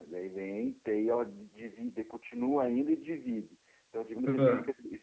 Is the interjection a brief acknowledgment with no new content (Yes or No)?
Yes